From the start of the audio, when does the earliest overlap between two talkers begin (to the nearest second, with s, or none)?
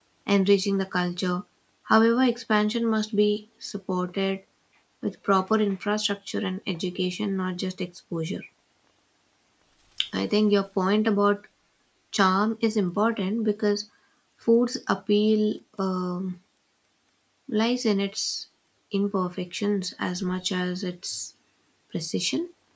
none